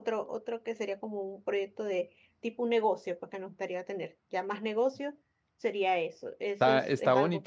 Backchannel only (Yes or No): No